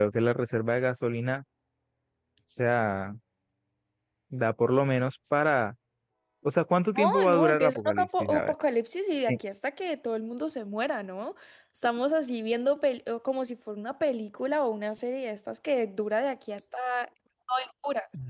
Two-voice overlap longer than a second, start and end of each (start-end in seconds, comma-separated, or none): 7.0-8.5